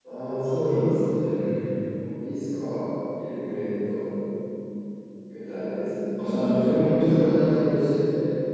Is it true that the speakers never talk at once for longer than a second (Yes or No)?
No